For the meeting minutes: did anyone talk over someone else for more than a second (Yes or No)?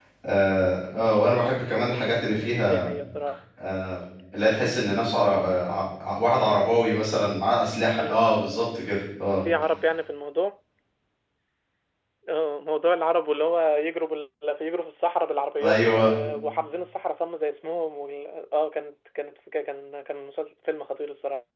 No